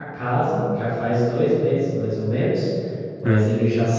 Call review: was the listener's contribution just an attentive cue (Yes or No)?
Yes